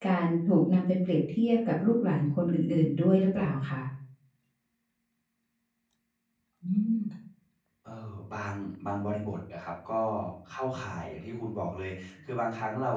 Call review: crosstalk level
none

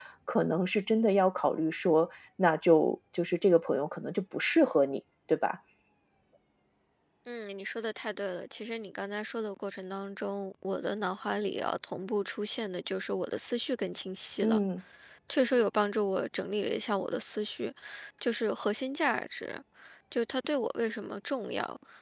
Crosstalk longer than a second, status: none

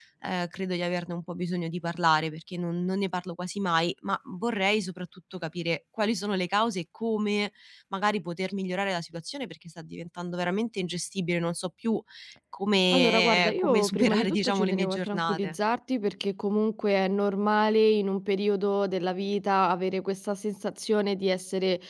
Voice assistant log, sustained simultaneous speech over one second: present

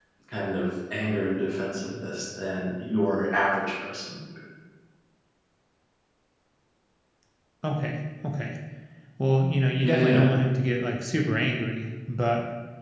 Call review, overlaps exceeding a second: none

